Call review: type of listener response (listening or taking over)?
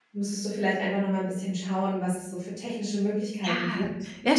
taking over